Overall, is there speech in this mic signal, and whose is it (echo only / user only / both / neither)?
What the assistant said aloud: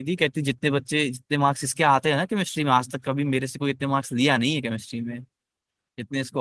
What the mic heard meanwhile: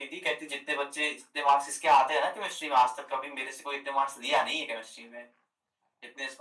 echo only